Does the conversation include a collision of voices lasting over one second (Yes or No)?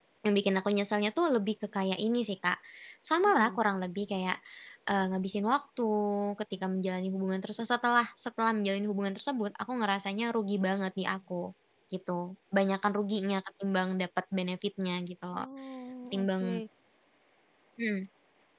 No